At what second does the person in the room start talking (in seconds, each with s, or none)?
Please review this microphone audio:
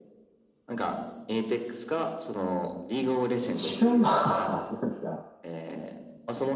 3.5 s